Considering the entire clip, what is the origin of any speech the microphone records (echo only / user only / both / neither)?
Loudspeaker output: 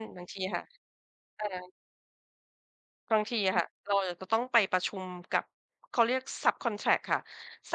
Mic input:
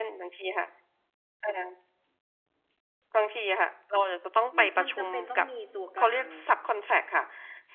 both